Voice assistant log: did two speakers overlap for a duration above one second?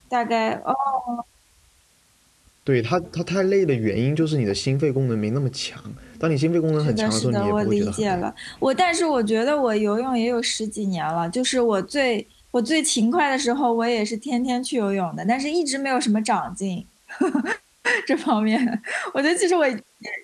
Yes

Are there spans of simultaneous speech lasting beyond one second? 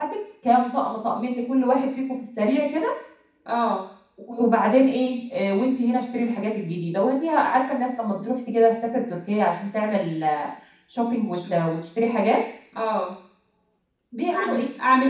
No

